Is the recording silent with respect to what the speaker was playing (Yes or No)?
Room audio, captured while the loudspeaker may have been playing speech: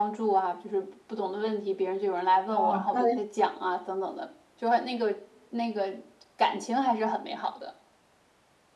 No